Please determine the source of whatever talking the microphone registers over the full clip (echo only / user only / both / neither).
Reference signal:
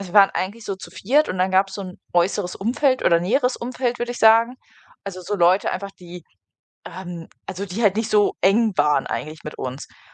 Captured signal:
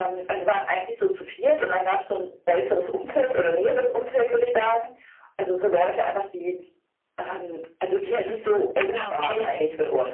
both